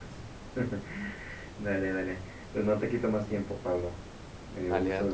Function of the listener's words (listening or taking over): taking over